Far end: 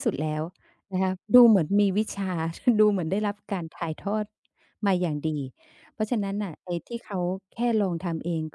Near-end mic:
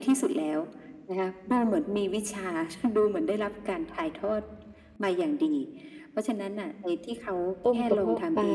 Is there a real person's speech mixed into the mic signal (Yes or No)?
Yes